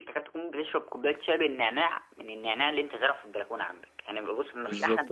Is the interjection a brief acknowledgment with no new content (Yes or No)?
No